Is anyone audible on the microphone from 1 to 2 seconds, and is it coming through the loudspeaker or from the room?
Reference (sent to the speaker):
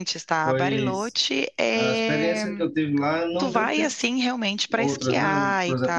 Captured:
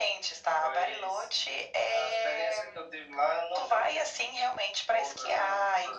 echo only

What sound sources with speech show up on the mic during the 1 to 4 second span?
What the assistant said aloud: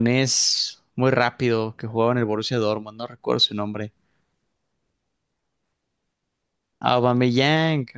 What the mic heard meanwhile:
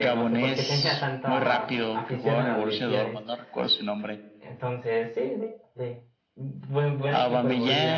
both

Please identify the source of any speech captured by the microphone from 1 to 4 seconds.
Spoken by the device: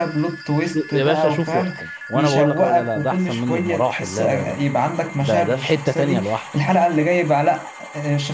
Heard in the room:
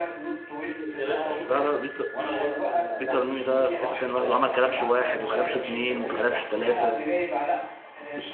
both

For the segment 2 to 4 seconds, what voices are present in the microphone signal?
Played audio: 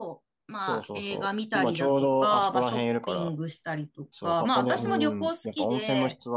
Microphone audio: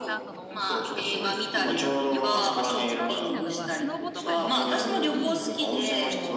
both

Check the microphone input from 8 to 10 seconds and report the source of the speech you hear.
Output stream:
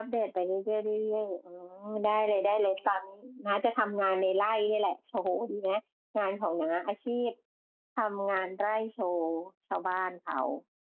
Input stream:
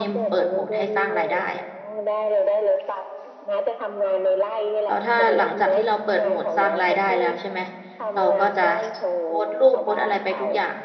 both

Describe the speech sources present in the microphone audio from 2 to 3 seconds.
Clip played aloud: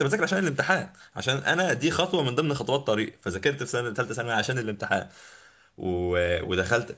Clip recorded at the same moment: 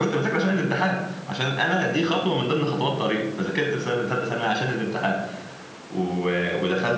echo only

